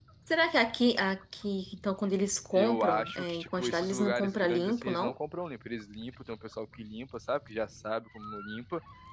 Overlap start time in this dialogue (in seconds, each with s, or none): 2.5 s